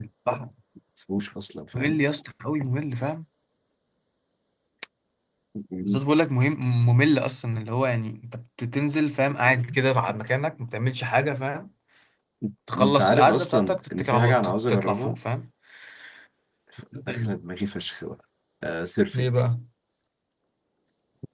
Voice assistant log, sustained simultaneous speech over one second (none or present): present